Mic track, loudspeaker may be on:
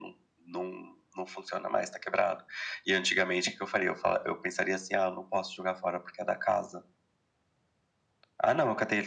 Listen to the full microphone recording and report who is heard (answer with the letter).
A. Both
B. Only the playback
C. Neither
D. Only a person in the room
B